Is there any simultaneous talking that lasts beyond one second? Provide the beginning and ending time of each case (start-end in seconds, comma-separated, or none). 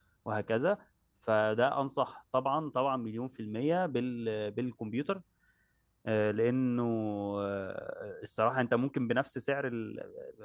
none